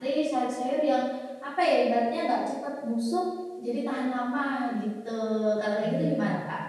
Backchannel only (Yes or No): No